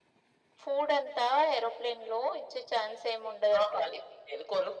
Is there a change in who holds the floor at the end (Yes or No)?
Yes